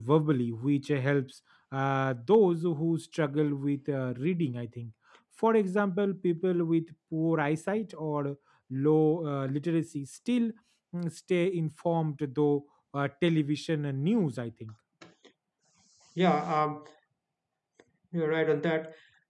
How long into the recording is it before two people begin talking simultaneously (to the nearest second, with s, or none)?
none